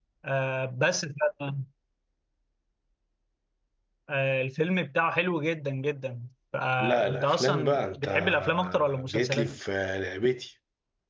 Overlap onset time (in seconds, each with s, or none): 6.8 s